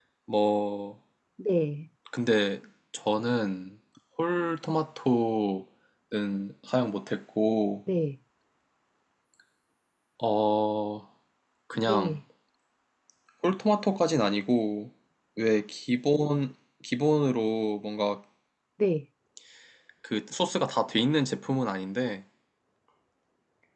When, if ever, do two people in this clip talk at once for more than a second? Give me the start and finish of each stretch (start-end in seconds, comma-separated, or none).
none